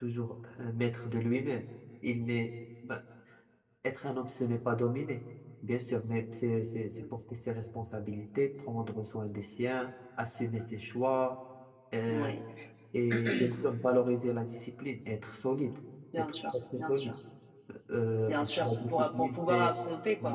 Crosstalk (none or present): present